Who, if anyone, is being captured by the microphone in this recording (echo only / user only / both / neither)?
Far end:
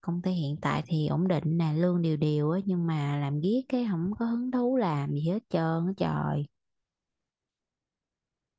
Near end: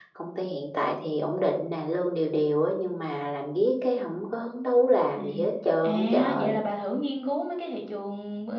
both